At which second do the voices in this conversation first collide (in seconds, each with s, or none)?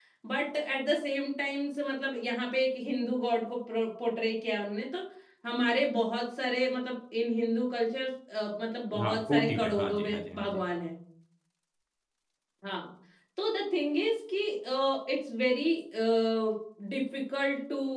8.9 s